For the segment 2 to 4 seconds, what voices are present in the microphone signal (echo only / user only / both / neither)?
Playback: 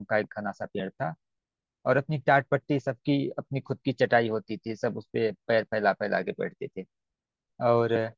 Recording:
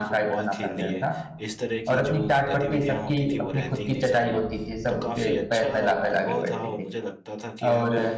both